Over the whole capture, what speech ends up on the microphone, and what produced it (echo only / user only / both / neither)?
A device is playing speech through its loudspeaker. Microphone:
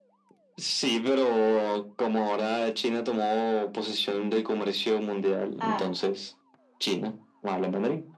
both